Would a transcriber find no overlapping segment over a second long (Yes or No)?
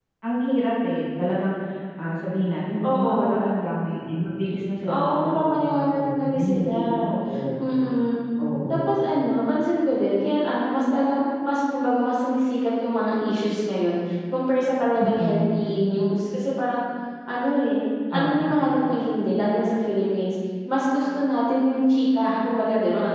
No